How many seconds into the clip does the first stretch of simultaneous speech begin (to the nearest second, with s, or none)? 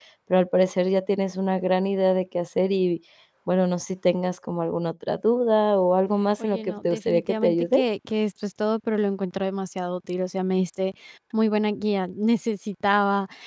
6 s